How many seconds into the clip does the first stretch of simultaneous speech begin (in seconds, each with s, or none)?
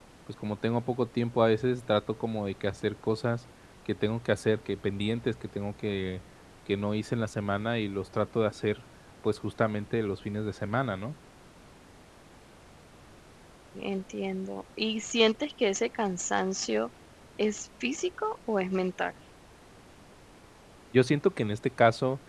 none